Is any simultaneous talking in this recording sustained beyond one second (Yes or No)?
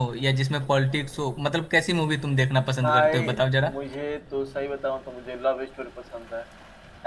No